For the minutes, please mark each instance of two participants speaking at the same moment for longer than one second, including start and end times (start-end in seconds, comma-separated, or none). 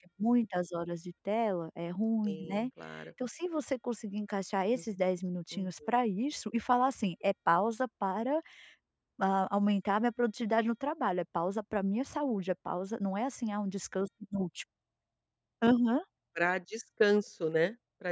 none